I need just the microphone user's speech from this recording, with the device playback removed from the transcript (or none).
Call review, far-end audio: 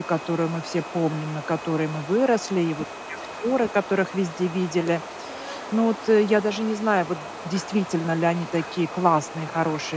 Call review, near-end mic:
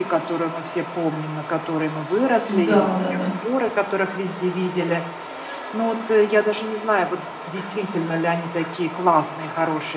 Да-да-да.